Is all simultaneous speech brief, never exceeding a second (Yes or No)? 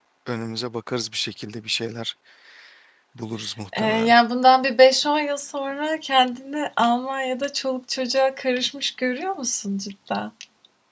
Yes